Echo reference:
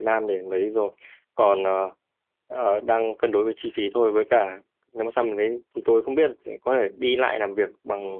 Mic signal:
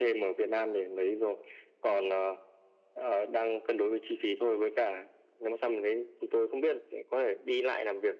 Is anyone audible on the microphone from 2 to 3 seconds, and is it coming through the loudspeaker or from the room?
echo only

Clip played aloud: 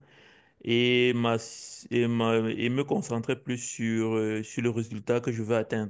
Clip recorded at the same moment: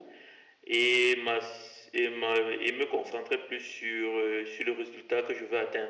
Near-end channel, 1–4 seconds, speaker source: echo only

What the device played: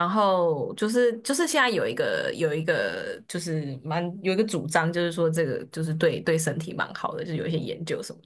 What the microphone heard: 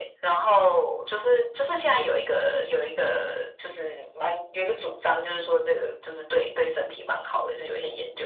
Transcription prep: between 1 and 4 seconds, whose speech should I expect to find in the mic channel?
echo only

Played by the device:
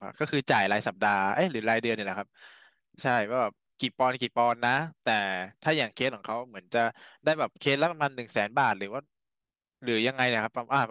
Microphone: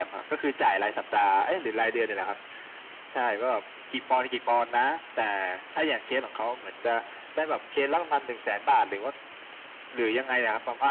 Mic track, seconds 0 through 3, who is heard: echo only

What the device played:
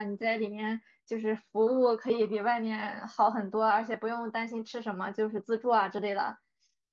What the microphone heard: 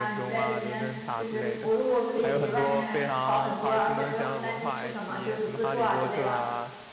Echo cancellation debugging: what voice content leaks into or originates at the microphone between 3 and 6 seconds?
both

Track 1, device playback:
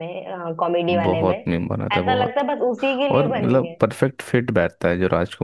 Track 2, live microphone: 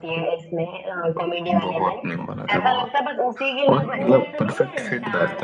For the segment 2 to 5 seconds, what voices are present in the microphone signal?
both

